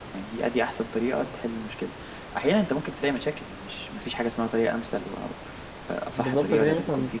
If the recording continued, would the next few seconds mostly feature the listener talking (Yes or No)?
Yes